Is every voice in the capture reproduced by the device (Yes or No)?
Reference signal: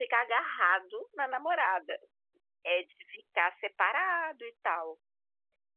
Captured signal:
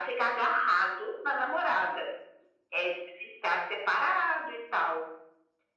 Yes